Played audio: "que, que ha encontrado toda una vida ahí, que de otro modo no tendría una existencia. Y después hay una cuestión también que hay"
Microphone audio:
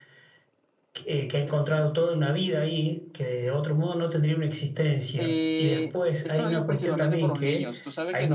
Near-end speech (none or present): present